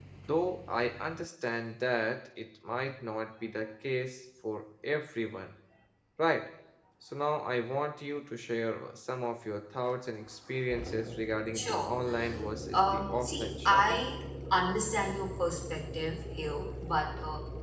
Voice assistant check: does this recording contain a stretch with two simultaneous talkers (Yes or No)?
Yes